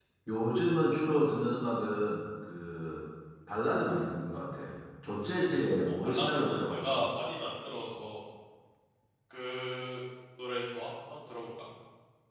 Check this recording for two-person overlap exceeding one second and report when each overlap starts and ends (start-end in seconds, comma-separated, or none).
5.8-7.0